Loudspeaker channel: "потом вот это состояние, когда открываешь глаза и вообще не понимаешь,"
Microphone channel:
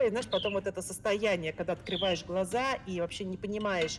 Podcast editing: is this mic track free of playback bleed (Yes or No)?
No